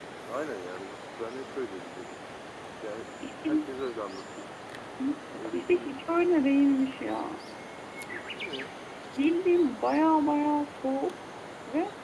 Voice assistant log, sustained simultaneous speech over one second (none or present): none